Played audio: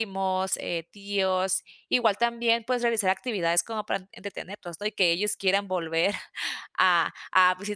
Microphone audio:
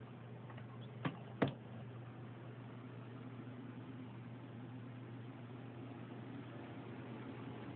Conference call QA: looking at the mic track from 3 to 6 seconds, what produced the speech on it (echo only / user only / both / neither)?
neither